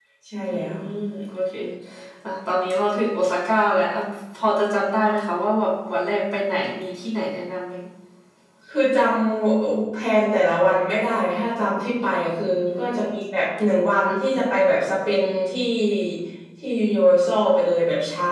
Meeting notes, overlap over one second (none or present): none